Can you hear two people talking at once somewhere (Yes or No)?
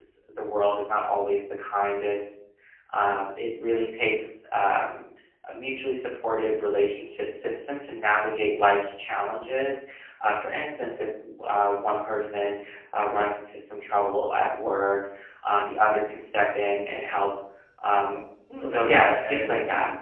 Yes